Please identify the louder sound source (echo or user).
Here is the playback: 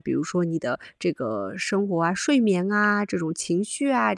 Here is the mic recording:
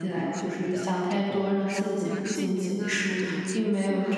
user